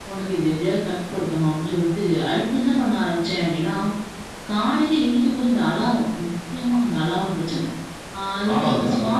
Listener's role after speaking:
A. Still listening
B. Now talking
B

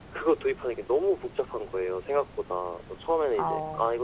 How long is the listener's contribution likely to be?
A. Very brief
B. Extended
A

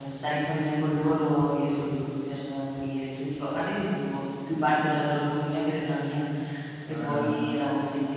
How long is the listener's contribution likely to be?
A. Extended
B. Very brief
B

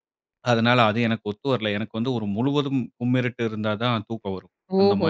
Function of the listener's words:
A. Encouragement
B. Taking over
B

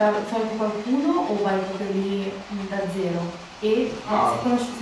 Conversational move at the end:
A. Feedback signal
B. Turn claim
A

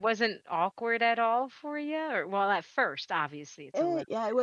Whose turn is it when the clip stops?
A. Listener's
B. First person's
A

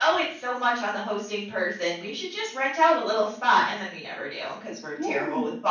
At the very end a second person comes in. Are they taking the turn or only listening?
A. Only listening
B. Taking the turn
B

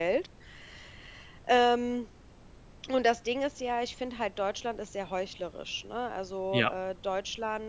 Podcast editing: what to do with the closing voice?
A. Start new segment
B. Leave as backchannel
B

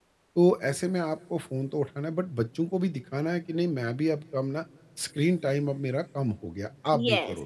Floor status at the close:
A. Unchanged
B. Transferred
B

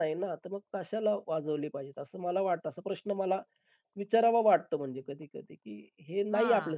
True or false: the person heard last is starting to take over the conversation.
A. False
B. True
A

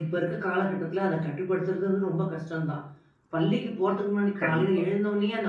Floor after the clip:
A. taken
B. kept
B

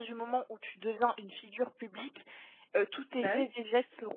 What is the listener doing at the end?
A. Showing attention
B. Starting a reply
A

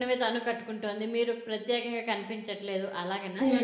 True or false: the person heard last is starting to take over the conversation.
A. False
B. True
B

